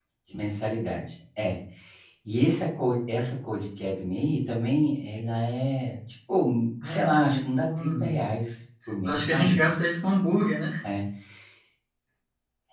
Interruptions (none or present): present